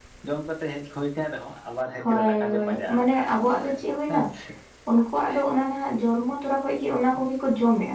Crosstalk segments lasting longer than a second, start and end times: 2.0-3.7

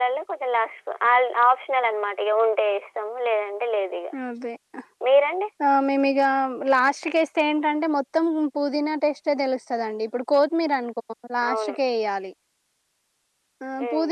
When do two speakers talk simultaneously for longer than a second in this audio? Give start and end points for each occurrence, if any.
none

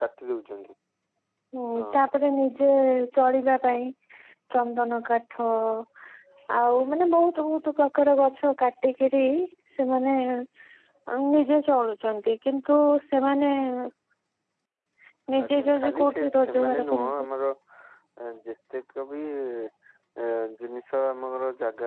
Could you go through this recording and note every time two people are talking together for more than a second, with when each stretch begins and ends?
15.4-17.1

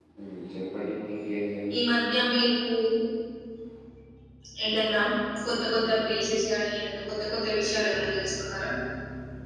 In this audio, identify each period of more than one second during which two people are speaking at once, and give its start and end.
none

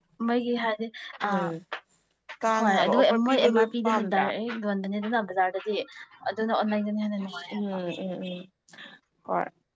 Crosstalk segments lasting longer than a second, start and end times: 2.5-4.3

